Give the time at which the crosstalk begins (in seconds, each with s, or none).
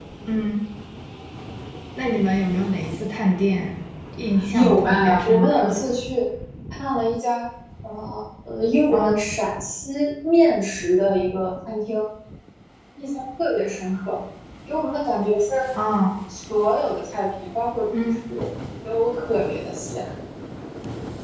4.5 s